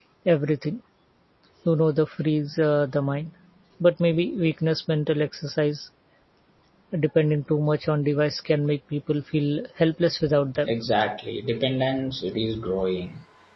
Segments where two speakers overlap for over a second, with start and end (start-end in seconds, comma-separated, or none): none